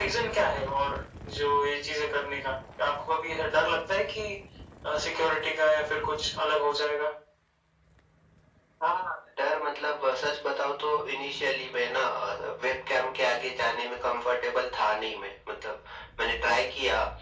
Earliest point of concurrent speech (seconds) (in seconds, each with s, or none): none